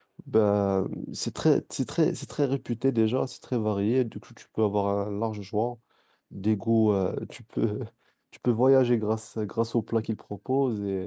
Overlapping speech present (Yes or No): No